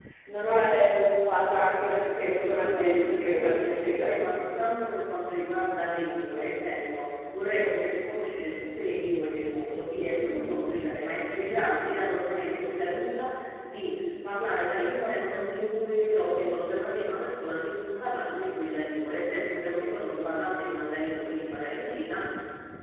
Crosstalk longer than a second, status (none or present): present